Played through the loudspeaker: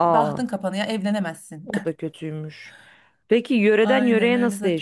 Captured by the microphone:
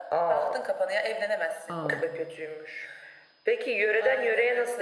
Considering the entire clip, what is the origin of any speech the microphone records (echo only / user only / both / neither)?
both